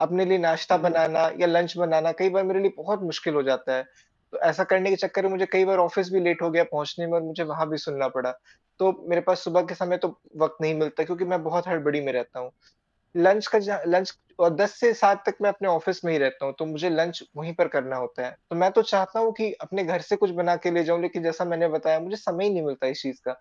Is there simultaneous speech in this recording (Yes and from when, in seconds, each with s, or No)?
No